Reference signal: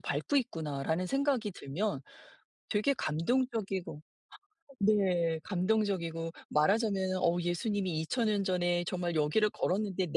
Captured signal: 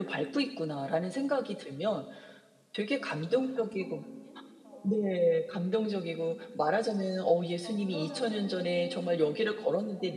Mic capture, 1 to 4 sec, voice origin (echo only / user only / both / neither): both